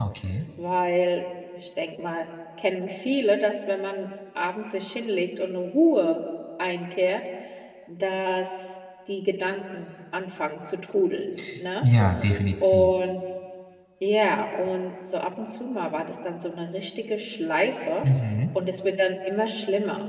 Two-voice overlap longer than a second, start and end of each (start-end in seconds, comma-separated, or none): none